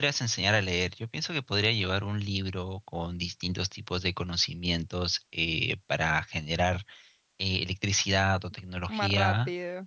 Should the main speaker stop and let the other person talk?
No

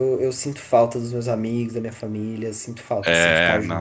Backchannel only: No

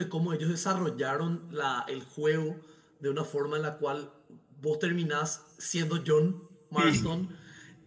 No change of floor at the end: Yes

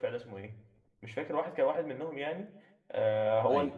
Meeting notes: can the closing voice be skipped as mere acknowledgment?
Yes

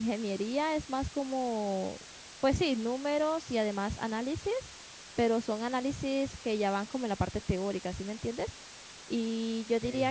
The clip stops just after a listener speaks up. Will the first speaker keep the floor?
Yes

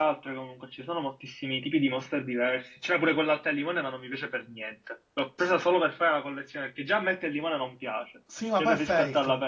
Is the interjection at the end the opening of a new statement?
Yes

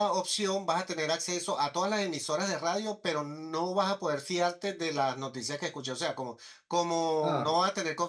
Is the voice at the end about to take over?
No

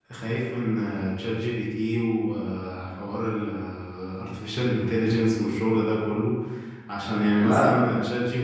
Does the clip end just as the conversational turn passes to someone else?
No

